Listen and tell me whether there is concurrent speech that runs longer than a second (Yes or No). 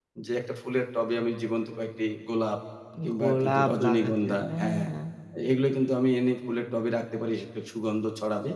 Yes